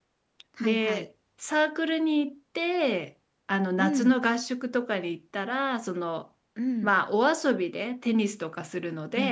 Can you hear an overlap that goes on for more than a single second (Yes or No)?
No